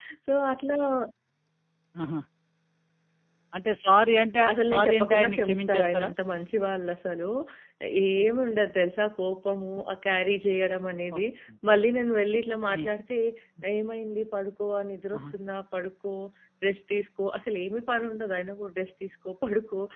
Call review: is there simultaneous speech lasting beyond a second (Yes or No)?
Yes